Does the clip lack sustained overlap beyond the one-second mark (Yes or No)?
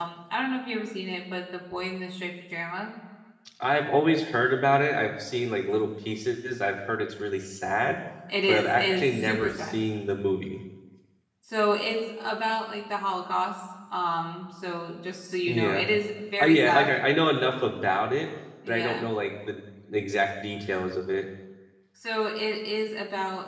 No